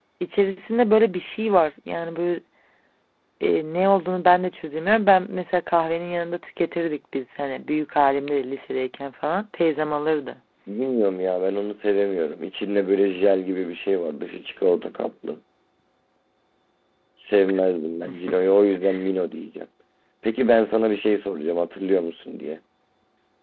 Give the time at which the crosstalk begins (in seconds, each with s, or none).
none